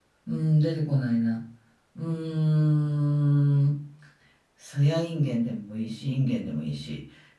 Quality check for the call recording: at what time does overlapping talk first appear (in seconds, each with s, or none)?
none